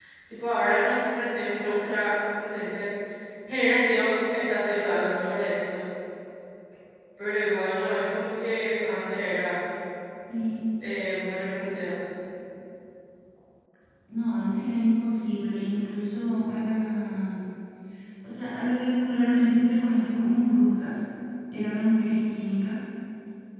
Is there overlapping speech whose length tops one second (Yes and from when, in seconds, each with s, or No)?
No